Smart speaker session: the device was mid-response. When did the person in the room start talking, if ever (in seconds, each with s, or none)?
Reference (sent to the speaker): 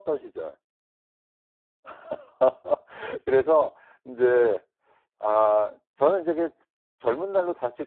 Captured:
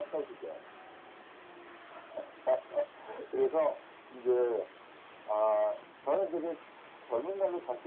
none